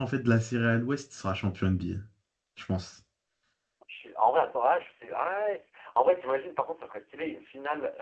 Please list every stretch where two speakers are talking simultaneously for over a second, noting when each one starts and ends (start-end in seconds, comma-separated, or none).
none